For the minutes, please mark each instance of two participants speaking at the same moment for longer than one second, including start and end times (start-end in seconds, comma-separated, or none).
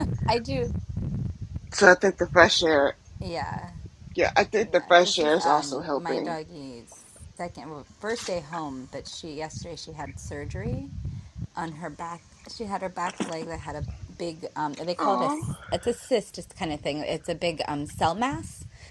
4.7-6.4